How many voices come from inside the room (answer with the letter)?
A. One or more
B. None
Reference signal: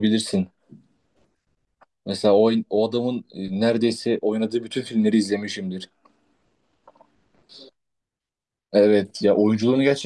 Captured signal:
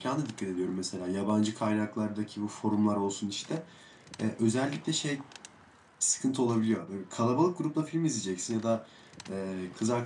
A